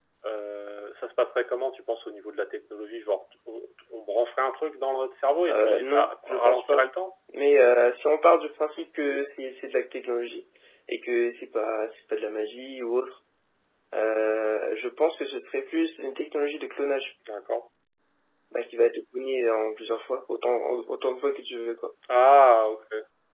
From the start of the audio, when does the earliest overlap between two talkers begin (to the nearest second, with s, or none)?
5 s